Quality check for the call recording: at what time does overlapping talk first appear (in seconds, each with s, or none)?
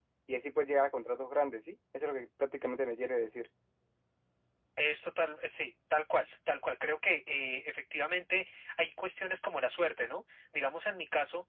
none